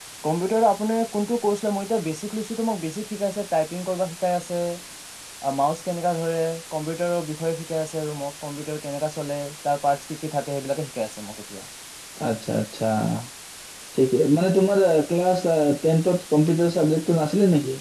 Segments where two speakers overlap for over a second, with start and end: none

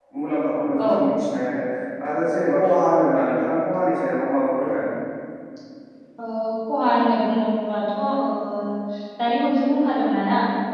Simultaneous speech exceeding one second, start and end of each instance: none

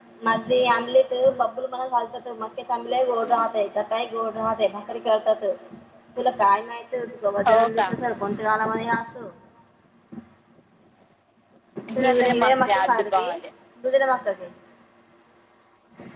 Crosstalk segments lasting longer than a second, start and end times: 12.1-13.3

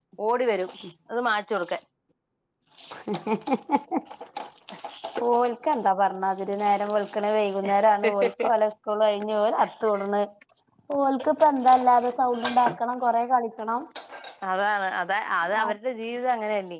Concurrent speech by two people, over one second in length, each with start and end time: none

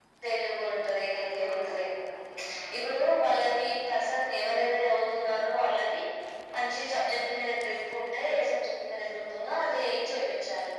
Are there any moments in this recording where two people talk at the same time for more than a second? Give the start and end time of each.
0.6-1.8

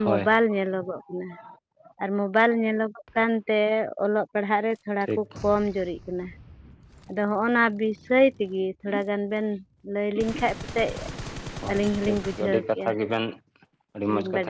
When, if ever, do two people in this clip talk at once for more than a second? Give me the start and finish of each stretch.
11.7-12.9

